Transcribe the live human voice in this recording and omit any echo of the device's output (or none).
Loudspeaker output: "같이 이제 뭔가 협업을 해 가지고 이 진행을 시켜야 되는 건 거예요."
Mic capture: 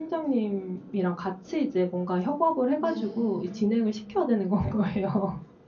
네.